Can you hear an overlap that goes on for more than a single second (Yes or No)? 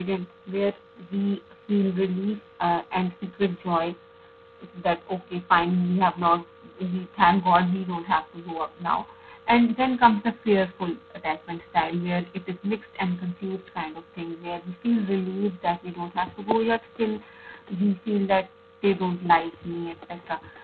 No